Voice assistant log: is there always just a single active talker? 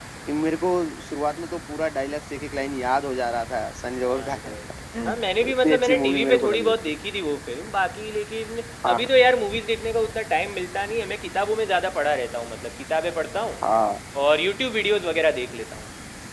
No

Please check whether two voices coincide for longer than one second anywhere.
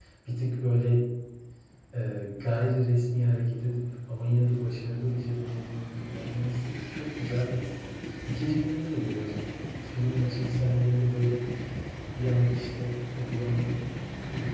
No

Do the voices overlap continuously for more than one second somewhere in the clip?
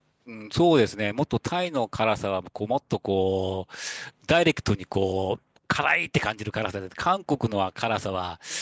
No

